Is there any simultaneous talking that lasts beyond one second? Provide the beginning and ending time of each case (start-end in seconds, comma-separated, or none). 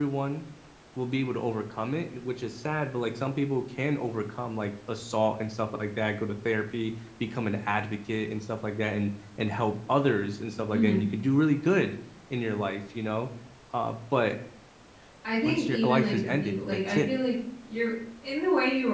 15.4-17.1